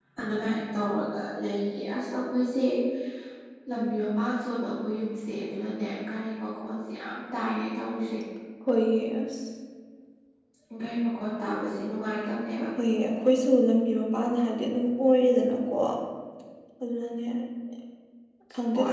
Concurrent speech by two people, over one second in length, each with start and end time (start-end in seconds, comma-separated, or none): none